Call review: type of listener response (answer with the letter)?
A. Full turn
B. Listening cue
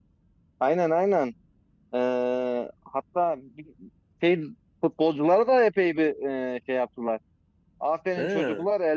B